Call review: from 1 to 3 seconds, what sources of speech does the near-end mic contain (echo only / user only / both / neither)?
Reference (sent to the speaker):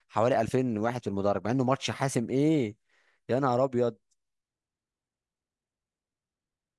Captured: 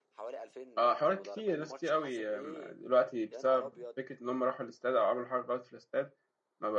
both